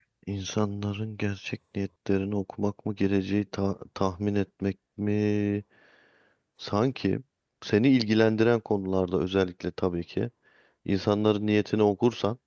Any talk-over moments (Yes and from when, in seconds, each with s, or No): No